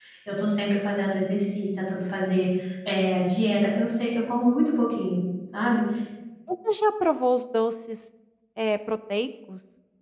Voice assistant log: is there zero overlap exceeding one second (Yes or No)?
Yes